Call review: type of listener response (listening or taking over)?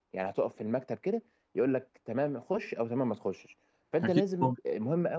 listening